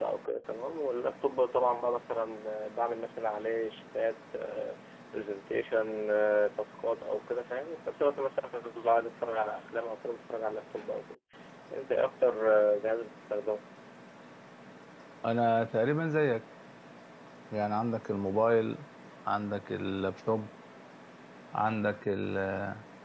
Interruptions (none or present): none